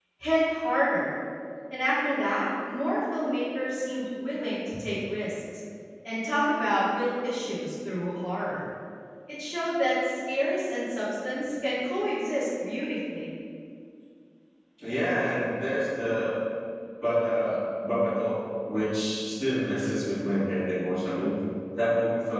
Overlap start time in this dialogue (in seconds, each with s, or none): none